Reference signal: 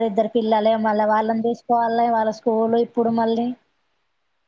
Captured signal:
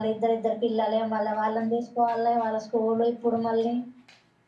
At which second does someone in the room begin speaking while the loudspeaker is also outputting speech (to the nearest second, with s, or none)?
none